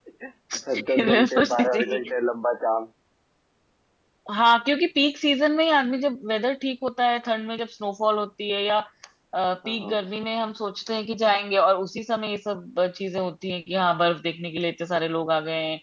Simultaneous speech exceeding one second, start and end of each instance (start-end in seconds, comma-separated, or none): 0.7-2.1